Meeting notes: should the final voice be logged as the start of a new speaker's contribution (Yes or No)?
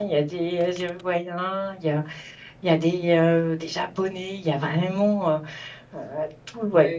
No